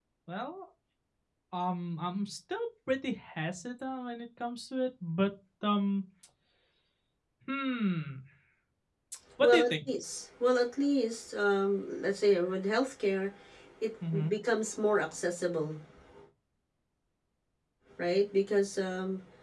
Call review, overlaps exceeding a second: none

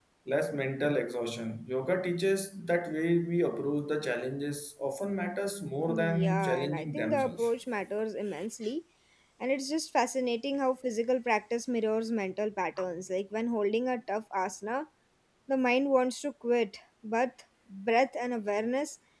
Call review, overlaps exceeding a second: present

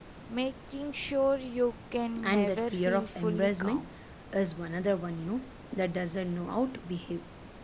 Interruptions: present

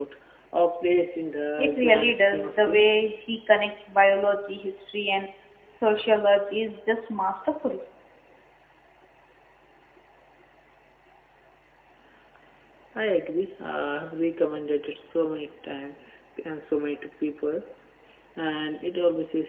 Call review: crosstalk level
present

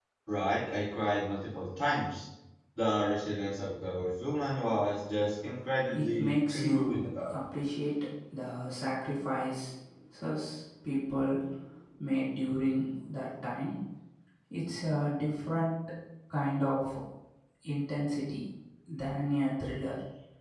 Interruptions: present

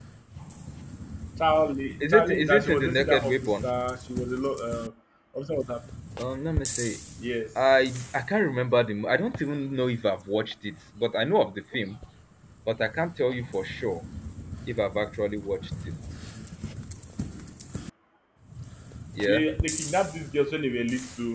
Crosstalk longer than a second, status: present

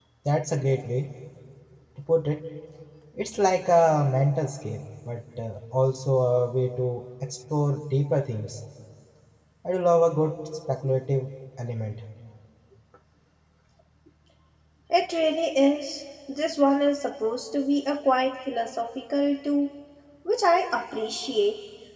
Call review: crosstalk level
none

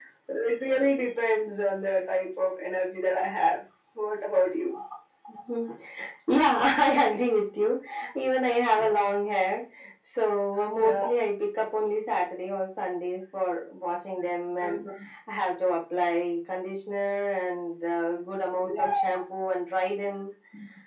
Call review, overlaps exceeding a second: none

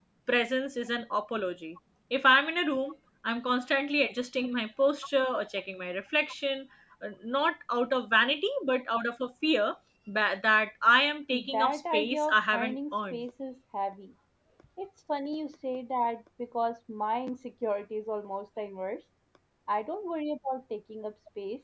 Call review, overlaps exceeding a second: present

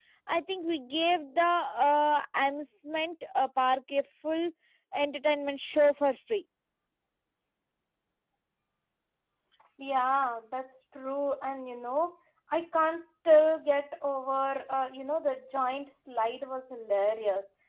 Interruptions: none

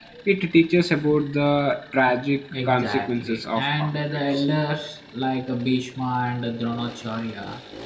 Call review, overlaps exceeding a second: present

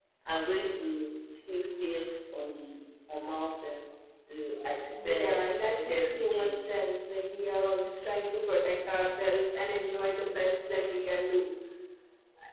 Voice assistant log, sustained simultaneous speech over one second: present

